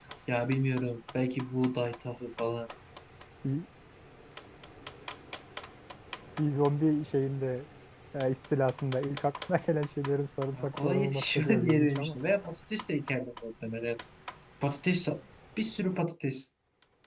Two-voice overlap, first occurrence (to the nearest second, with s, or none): 11 s